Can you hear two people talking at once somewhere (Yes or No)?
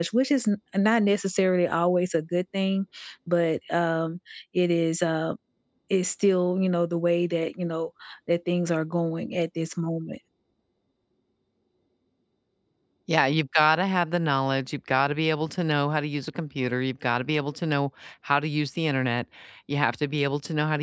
No